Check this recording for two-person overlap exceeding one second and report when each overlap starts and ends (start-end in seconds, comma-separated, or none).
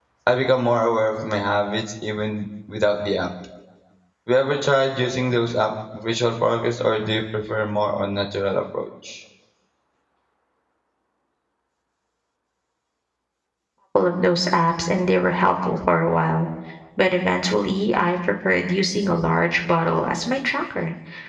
none